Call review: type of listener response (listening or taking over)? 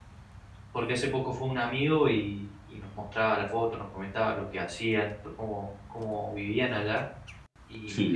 listening